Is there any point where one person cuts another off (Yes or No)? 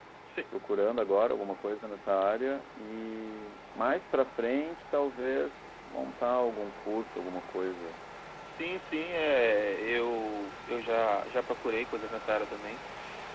No